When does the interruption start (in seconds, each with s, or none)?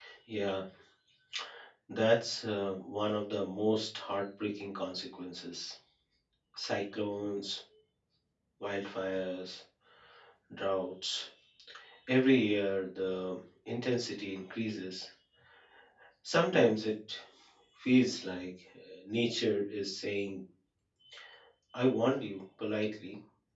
none